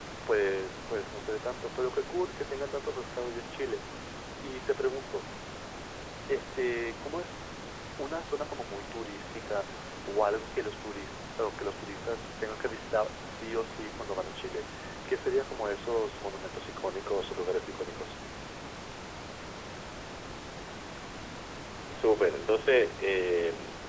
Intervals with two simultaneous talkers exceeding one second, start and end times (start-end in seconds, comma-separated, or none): none